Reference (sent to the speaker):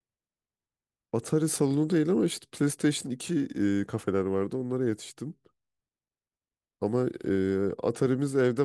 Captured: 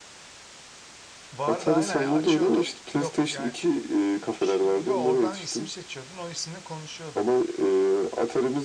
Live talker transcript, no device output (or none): Vardı aynen açıyordun yok yani ş- yok oradan isim seçiyordun o isimle konuşuyordun.